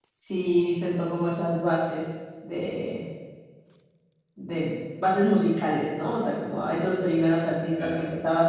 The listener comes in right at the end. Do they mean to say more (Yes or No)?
No